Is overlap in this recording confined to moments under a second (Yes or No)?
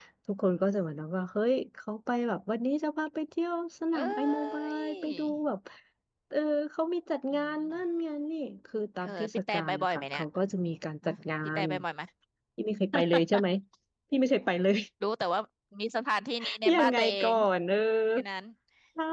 No